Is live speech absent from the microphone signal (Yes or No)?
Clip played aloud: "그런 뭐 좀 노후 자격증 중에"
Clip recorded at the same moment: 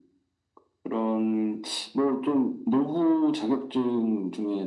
Yes